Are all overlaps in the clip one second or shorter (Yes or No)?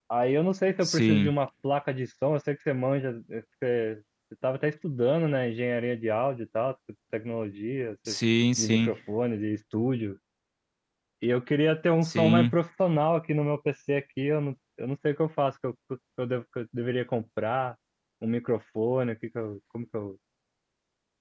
Yes